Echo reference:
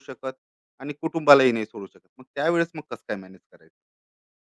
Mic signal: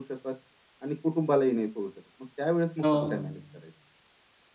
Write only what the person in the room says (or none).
हो.